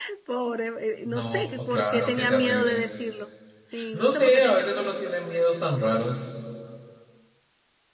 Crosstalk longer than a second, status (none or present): present